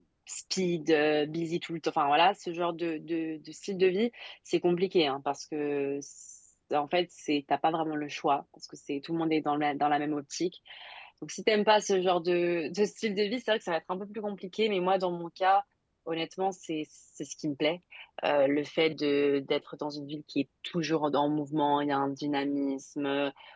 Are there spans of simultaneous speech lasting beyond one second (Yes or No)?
No